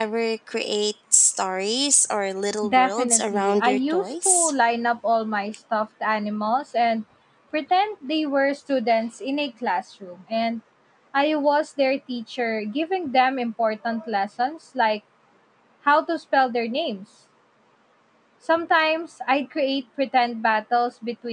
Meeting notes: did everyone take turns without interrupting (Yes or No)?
No